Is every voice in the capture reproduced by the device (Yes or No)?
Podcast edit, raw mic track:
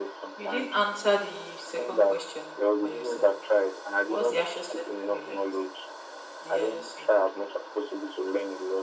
No